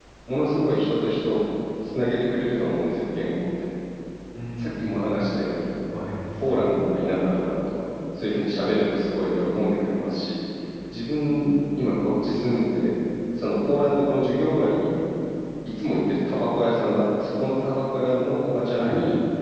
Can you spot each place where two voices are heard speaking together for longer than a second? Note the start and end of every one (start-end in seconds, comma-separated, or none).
none